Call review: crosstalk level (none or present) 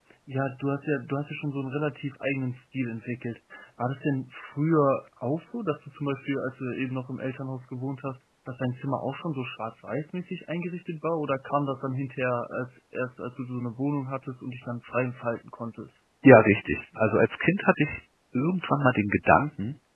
none